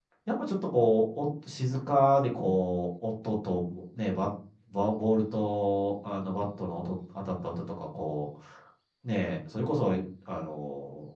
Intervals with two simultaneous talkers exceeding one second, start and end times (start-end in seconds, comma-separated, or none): none